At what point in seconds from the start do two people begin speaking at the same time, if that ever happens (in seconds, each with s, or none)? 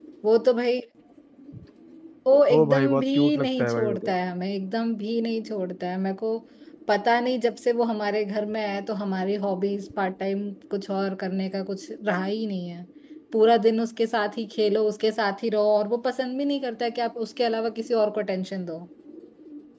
2.5 s